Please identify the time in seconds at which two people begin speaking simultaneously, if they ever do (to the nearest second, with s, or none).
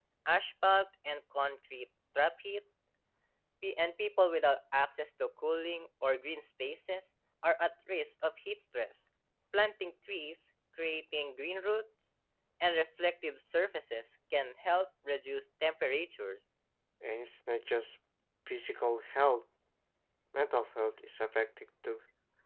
none